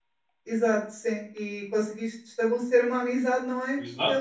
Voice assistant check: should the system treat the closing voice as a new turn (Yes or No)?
Yes